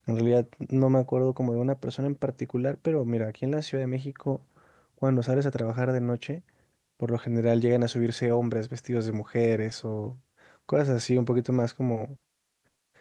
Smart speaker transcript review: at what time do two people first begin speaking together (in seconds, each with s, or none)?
none